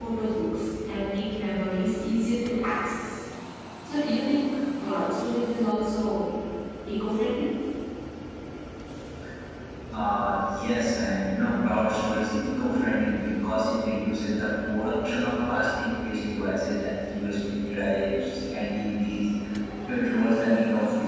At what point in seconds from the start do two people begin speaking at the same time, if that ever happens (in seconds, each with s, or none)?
none